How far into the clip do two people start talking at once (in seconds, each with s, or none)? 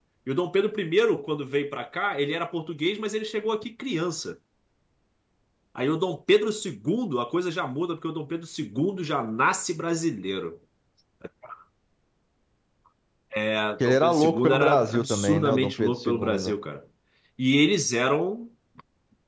13.8 s